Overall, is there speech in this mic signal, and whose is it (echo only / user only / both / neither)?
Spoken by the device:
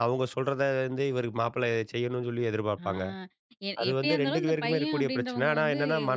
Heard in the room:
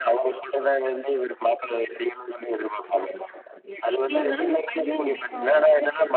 echo only